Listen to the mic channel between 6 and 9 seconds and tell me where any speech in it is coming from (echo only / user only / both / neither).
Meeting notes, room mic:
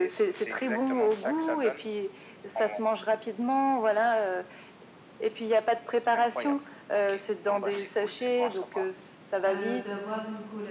echo only